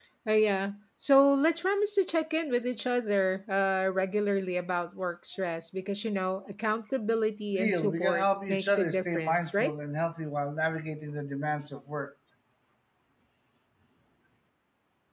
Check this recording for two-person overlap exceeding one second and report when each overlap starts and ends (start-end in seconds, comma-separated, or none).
7.5-9.7